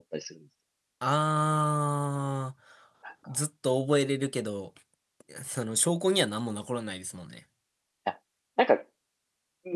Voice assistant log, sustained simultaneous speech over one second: none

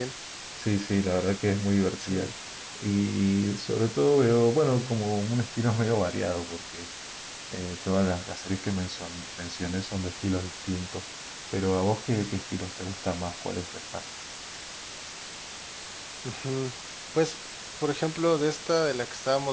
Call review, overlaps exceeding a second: none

